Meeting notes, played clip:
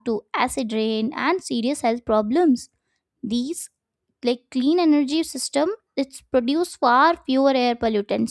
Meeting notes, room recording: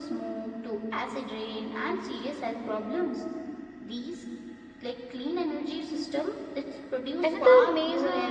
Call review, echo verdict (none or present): present